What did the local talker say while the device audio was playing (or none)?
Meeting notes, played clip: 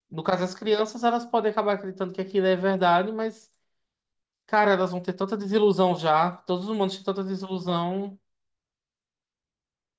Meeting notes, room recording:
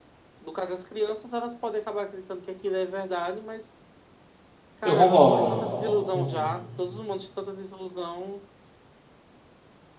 Eu concordo. Uhum.